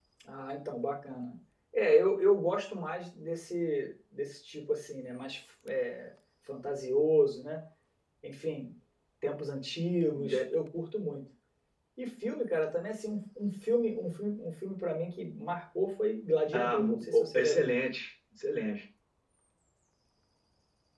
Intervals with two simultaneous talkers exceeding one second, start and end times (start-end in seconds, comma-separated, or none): 16.5-17.7